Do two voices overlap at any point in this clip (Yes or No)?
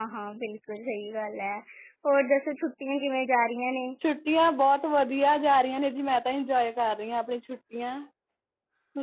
No